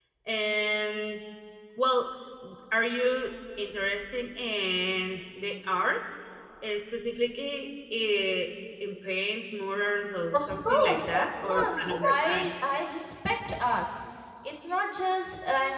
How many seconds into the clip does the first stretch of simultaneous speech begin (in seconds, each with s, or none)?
10.3 s